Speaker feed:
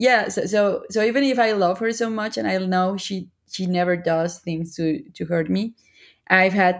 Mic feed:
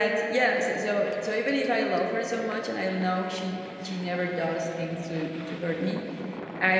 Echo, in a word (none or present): present